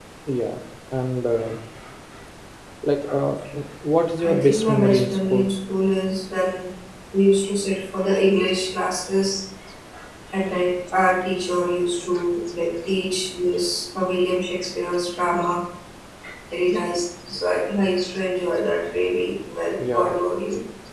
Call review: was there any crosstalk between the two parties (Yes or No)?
Yes